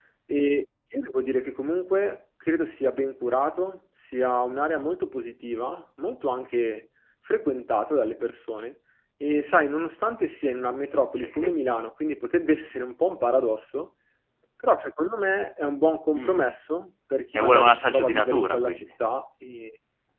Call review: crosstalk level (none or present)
present